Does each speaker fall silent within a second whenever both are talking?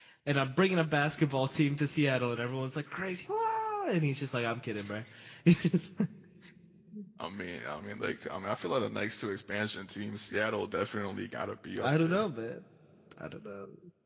Yes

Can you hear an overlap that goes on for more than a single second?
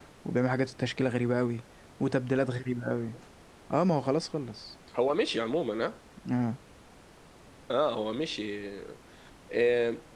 No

